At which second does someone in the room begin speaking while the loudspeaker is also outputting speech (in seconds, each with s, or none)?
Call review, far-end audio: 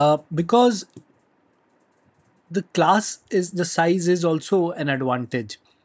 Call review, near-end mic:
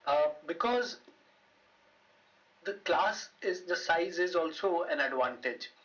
none